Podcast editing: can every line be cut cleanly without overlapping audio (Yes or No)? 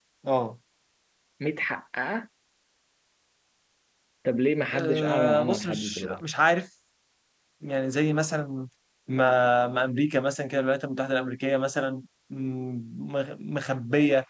No